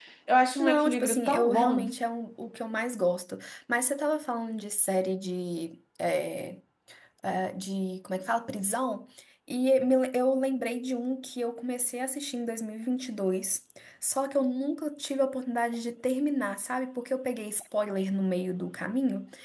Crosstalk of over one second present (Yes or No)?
Yes